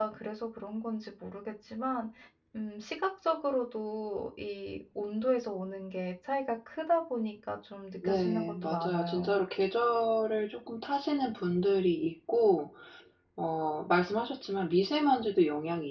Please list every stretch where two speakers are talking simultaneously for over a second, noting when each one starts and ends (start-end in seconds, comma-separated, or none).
8.0-9.4